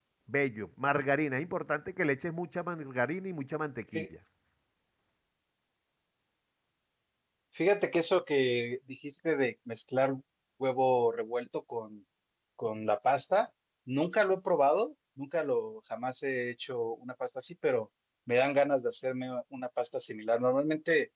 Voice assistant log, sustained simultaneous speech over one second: none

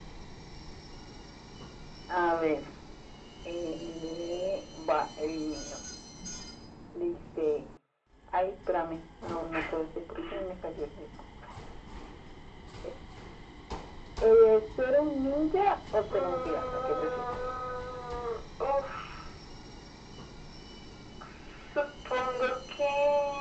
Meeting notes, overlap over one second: present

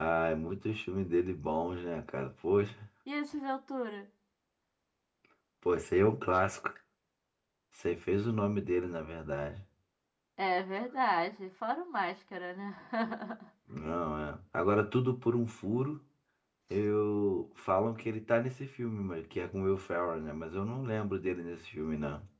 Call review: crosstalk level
none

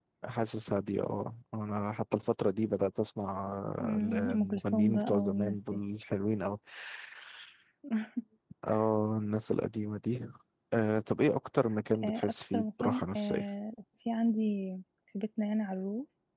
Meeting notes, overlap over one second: present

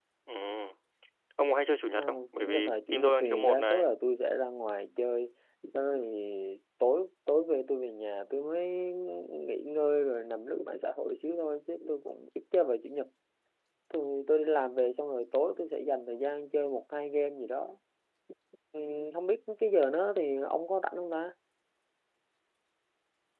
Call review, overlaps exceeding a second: present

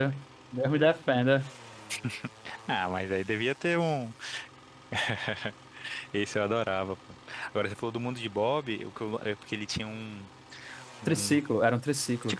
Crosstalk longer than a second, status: none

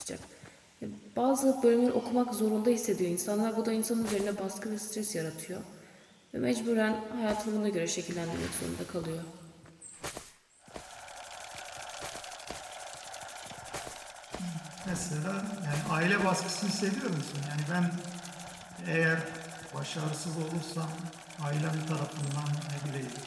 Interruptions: none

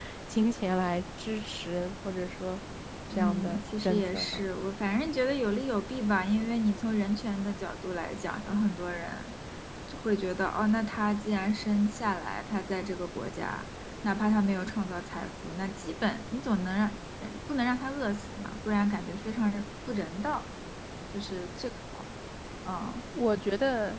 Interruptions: present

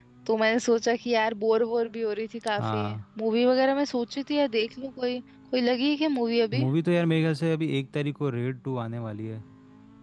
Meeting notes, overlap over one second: none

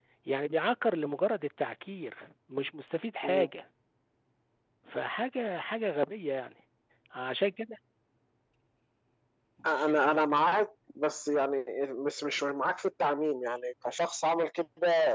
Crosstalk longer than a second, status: none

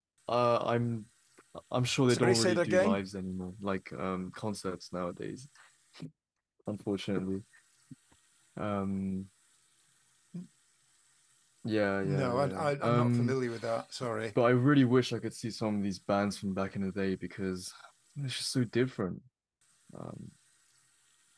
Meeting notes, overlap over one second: present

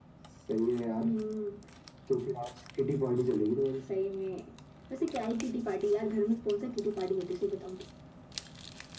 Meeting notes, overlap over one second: none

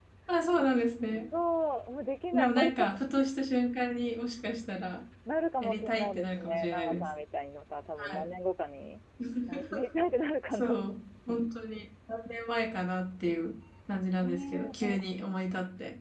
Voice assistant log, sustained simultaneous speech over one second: present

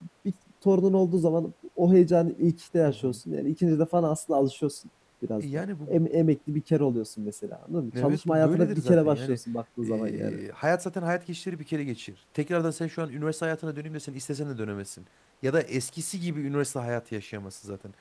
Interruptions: present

